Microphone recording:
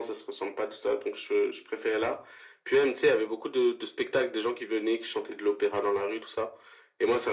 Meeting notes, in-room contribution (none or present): none